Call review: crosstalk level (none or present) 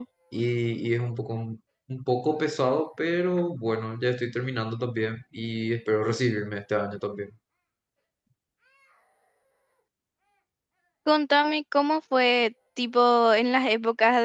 none